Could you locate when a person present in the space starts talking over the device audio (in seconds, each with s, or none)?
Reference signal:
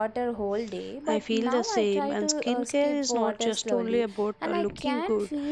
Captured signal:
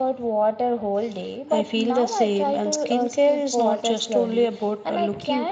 none